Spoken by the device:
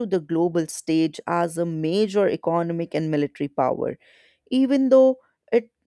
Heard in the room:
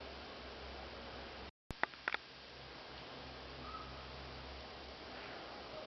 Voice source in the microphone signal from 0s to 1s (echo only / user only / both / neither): neither